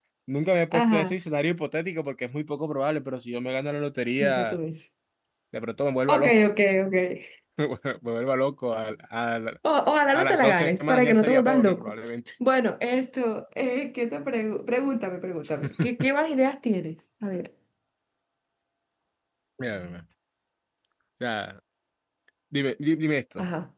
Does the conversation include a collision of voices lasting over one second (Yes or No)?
Yes